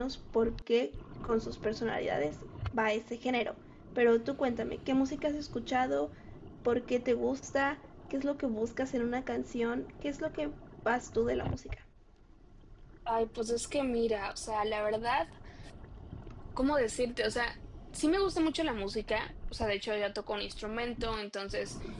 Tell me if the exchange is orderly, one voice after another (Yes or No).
Yes